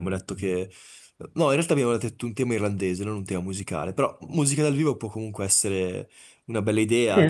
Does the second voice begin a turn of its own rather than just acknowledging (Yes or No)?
Yes